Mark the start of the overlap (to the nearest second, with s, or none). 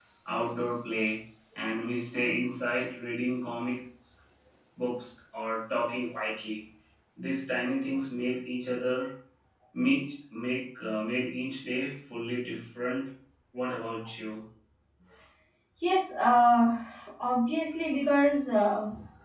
none